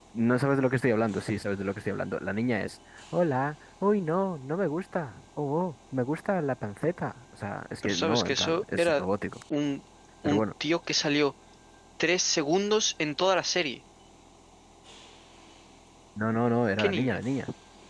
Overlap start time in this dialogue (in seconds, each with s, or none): 7.8 s